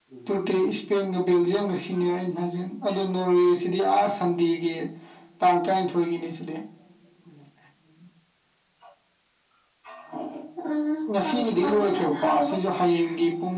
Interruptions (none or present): present